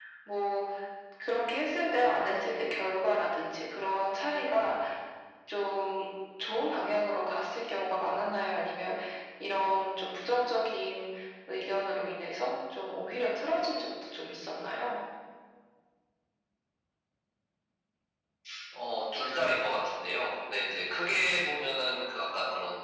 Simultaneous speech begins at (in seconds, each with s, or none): none